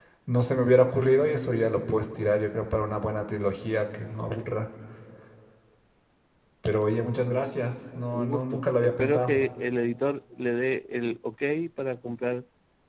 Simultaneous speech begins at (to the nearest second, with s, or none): 8 s